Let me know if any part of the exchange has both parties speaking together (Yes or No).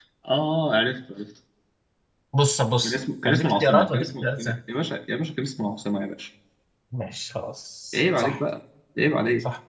Yes